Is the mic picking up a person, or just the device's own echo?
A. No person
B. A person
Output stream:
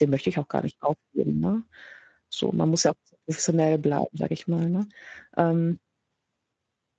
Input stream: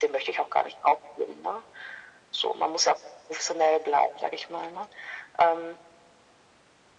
A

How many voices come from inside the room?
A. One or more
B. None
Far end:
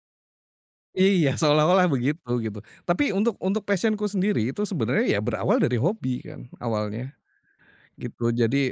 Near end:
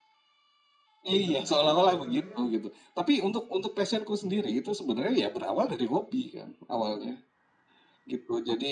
A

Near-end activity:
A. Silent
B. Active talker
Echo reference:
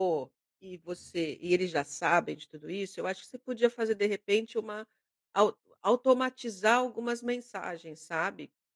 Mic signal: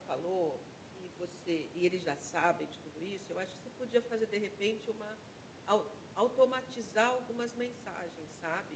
A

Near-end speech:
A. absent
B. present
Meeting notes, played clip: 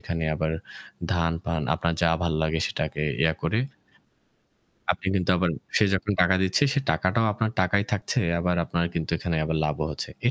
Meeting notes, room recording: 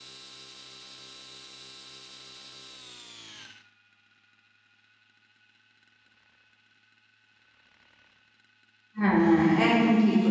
B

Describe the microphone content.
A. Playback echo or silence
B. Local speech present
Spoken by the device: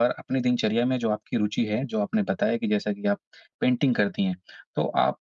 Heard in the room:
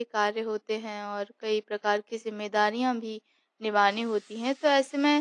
B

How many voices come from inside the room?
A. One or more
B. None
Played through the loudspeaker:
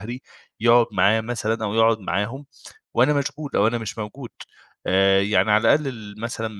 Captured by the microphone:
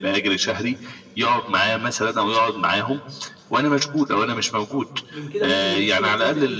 A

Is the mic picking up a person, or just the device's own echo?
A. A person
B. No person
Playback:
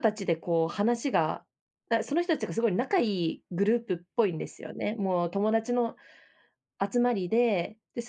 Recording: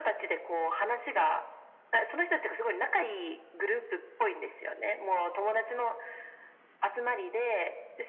B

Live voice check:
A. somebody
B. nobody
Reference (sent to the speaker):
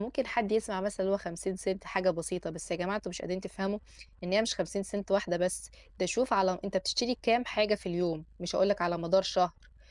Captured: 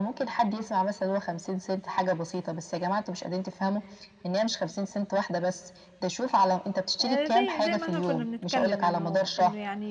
A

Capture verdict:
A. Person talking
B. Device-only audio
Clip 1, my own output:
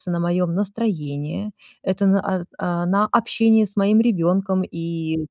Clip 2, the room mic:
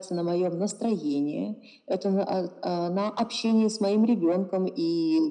B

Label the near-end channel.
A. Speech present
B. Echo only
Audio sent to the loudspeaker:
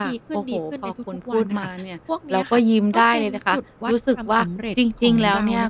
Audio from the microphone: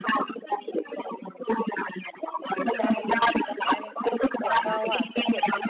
A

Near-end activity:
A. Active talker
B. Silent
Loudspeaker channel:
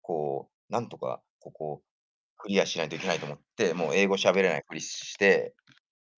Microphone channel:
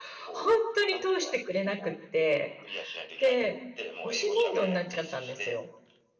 A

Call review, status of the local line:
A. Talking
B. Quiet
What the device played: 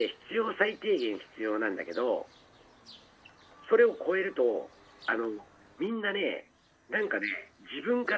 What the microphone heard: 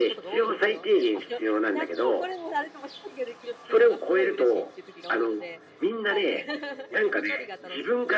A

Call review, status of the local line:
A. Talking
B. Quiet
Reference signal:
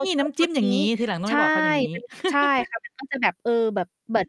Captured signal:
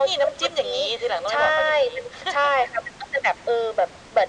B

